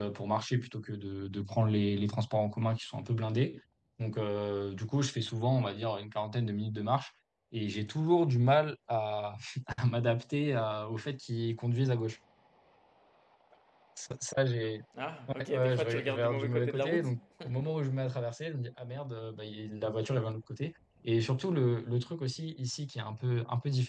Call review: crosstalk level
present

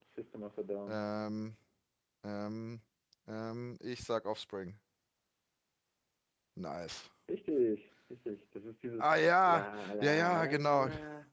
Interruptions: present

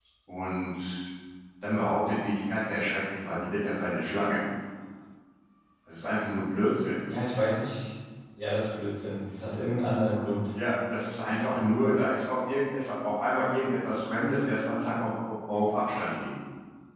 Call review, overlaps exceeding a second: none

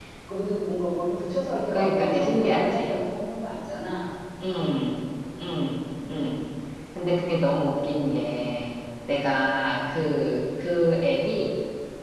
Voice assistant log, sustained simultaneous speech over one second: present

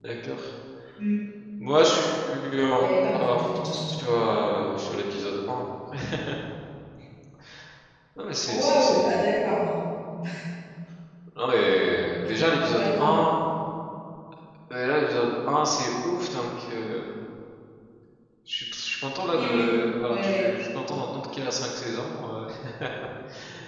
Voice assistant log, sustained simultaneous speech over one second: present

